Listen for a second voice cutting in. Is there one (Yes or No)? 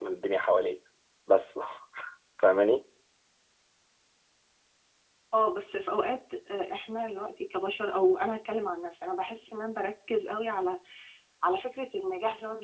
No